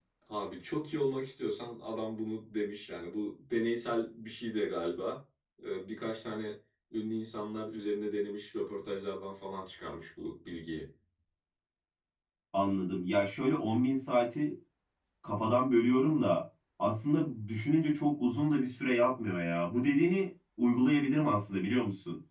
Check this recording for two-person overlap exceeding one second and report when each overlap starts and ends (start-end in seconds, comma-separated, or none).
none